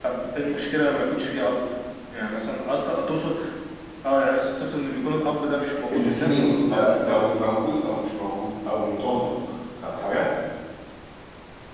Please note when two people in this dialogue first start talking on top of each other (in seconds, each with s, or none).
5.9 s